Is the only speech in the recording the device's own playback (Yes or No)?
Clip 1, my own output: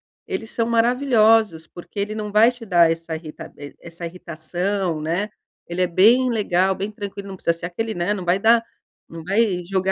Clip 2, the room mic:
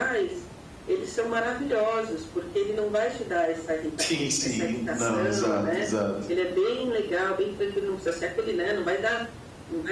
No